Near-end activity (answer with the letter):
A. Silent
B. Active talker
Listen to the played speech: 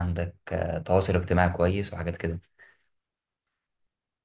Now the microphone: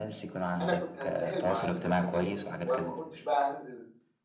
B